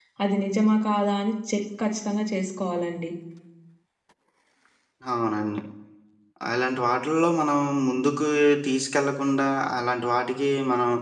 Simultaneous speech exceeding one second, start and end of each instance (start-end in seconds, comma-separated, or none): none